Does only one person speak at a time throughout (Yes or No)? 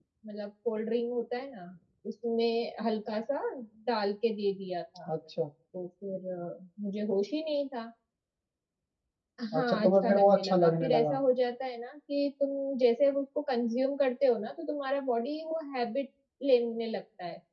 No